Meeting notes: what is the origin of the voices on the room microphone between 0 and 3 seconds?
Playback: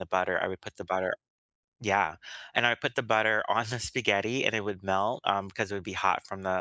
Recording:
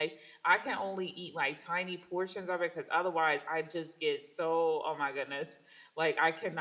user only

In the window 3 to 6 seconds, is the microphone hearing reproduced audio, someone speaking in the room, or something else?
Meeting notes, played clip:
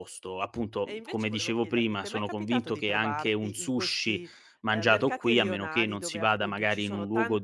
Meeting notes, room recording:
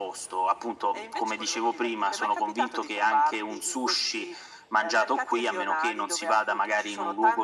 echo only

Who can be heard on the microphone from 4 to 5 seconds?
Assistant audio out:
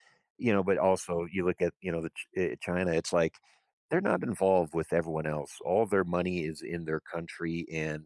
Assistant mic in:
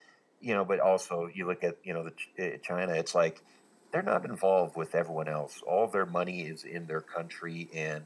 echo only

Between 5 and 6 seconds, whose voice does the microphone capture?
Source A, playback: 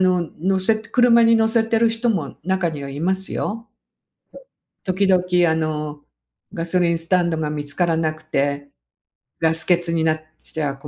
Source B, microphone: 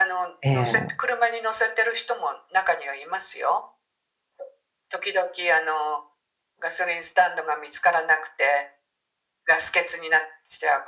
echo only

